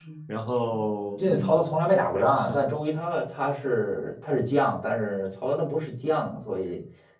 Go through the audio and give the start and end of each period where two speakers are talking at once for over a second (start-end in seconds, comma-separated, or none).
none